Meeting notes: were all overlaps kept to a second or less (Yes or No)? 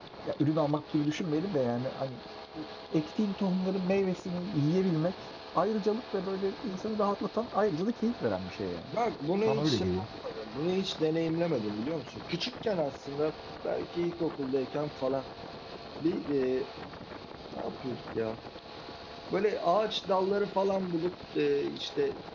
Yes